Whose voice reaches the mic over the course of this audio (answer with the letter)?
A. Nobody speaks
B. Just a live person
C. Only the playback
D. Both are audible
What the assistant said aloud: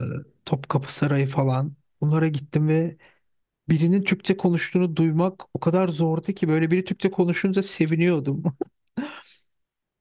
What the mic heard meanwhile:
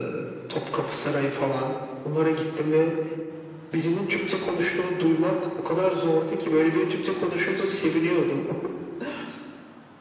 C